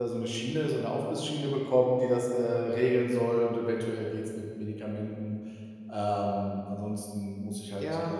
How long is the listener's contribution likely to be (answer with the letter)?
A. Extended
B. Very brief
A